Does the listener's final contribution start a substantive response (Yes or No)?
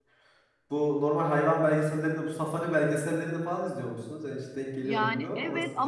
Yes